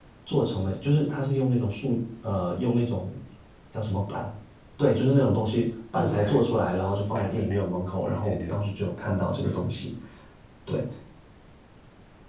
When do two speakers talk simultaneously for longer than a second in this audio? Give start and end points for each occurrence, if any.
none

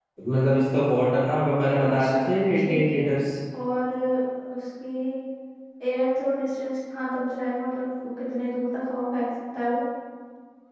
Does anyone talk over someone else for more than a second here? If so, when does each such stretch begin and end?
1.8-3.1

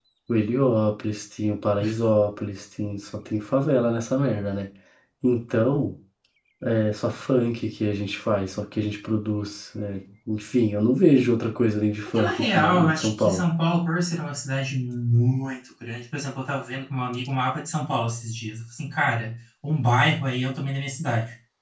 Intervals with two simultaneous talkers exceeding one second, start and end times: 12.2-13.4

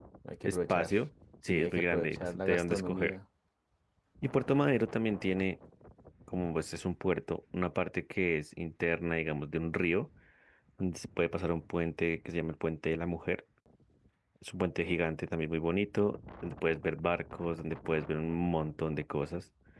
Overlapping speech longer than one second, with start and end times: 1.5-3.2

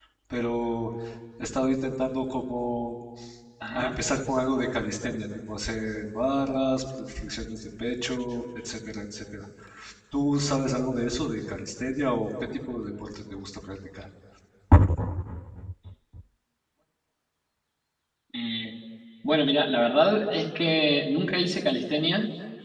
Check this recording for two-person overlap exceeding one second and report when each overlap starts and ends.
none

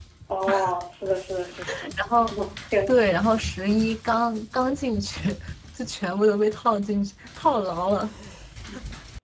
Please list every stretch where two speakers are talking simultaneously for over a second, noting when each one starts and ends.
none

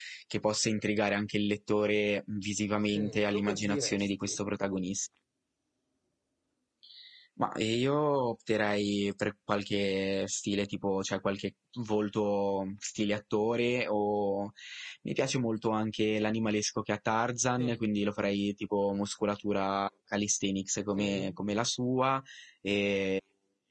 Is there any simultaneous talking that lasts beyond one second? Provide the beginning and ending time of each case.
2.9-4.4

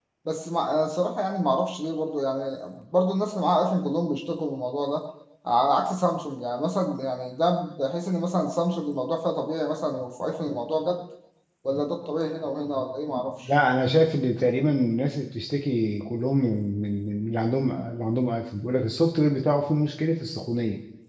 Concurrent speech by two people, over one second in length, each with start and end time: none

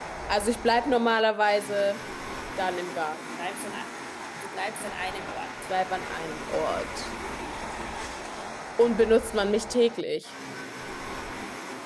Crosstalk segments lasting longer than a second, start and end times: none

